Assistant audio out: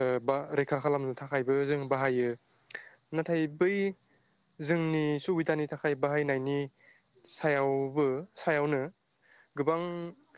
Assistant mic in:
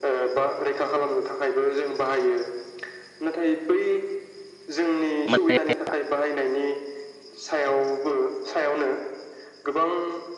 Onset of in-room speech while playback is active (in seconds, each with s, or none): 5.3 s